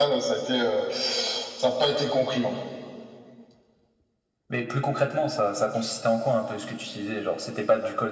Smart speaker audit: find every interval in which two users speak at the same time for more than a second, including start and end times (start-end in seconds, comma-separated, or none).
none